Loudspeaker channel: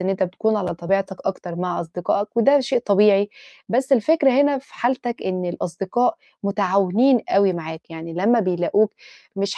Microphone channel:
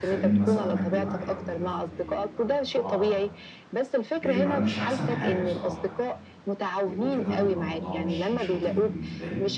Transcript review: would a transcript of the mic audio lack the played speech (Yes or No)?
No